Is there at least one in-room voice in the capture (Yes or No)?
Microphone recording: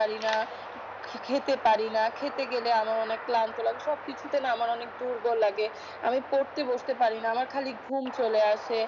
No